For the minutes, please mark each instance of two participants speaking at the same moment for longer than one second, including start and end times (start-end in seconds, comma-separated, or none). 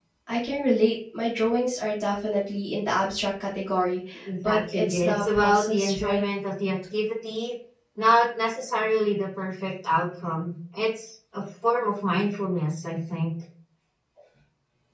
4.4-6.2